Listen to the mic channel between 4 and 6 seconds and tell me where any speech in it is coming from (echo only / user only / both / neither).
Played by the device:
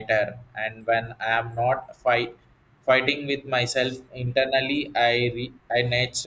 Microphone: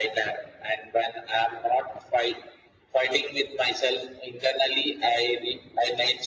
echo only